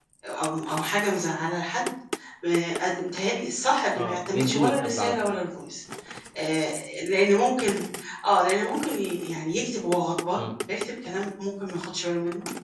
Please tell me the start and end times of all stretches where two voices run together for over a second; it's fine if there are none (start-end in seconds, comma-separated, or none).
4.0-5.4